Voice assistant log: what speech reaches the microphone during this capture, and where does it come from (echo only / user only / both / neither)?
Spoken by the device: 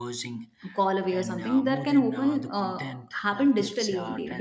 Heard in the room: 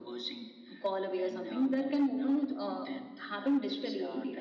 echo only